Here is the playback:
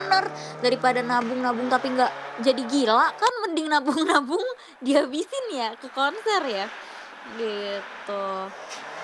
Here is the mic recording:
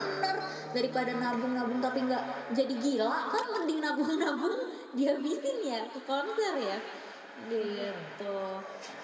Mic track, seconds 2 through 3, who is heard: echo only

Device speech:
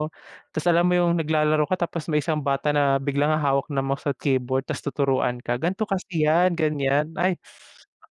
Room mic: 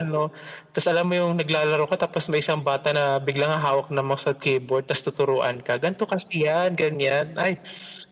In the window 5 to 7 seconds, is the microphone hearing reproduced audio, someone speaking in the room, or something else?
echo only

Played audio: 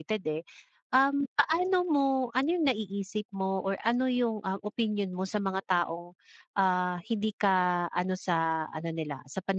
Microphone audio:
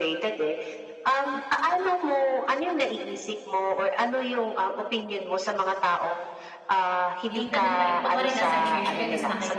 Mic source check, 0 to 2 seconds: echo only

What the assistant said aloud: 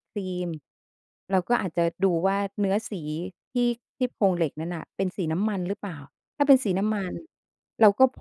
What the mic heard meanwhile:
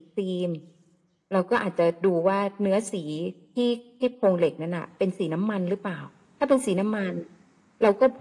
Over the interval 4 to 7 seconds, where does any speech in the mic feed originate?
echo only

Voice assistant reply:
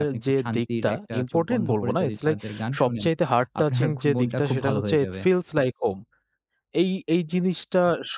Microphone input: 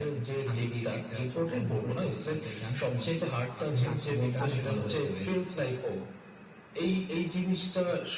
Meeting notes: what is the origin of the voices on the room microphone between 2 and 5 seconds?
both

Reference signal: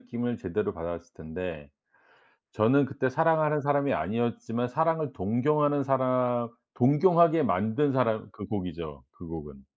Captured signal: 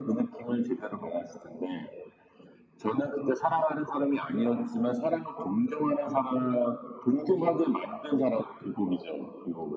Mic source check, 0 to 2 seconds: echo only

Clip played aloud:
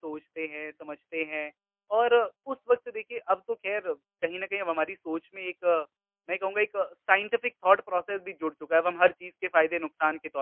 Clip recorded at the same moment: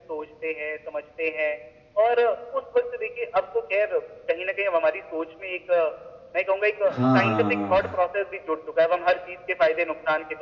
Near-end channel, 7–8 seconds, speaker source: both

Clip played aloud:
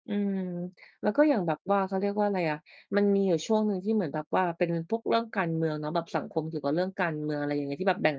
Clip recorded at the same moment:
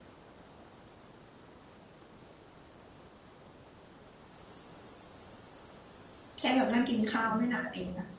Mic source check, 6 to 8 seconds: user only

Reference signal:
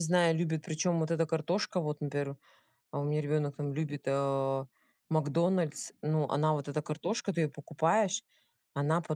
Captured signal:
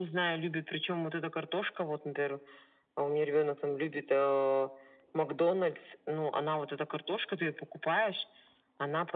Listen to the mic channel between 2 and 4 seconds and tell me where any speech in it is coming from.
echo only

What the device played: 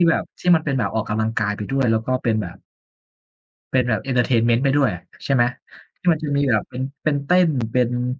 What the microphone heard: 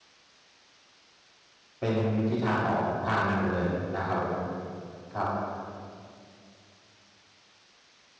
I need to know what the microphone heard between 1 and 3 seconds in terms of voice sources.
user only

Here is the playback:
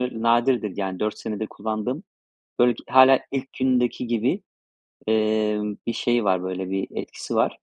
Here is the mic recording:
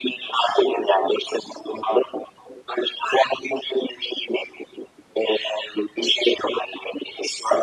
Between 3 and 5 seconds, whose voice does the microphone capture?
echo only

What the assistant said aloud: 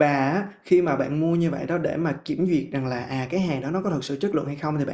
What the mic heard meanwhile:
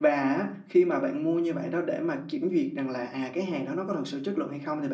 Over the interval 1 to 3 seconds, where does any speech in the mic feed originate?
echo only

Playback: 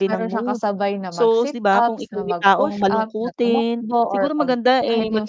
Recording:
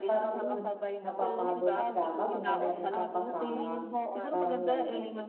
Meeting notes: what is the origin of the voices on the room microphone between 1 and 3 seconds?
both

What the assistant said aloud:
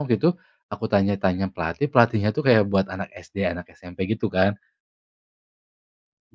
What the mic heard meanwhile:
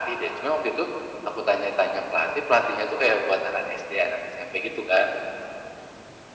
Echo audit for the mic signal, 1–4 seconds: echo only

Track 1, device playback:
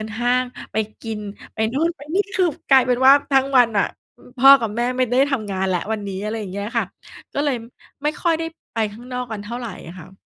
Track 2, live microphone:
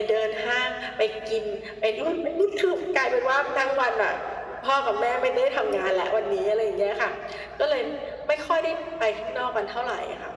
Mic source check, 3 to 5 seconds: echo only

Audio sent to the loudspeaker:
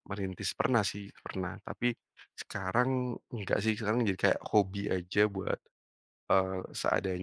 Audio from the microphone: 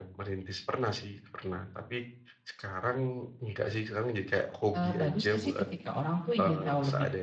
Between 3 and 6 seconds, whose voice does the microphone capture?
both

